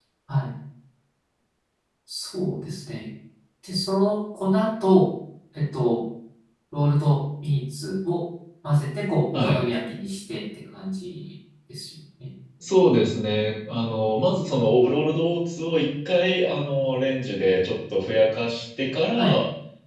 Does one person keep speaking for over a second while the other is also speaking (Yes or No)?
No